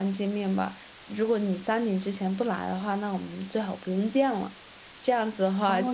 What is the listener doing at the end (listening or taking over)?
taking over